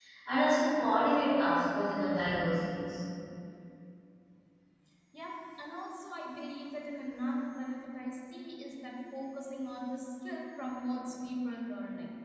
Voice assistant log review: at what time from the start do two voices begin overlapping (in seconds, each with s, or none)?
none